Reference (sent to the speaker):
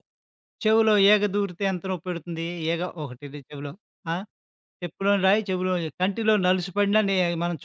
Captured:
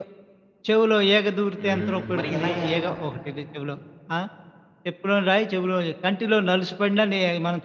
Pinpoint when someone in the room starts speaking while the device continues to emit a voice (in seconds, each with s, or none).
1.6 s